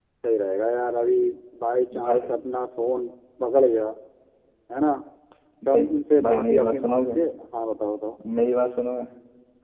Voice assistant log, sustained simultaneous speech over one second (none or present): present